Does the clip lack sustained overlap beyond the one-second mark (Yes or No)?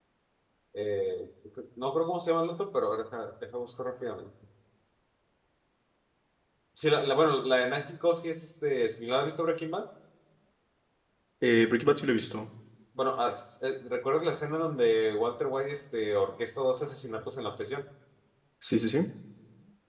Yes